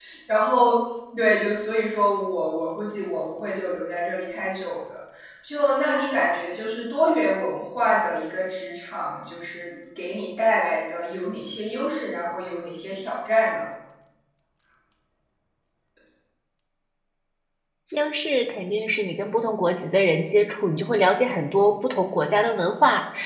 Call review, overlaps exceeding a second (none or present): none